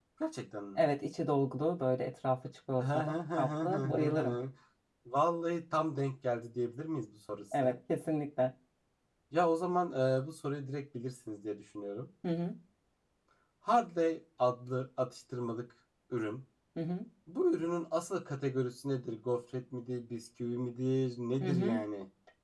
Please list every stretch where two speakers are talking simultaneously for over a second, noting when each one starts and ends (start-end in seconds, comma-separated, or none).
2.8-4.3